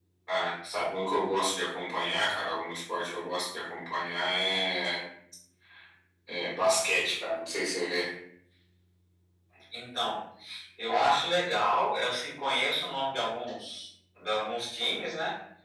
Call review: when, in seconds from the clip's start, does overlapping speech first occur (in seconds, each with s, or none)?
none